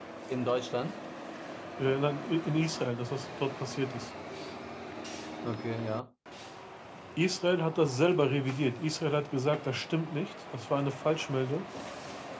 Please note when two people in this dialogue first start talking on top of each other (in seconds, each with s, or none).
none